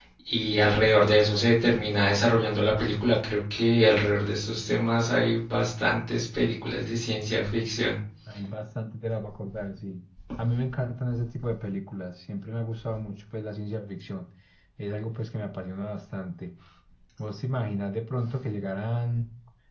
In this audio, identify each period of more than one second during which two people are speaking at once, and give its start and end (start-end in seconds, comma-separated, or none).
none